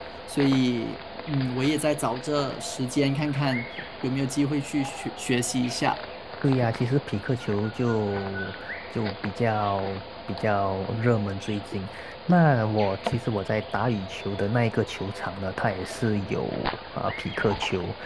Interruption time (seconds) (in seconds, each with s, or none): none